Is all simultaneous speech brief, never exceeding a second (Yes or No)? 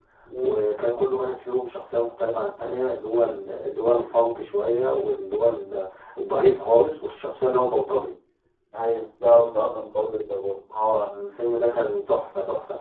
Yes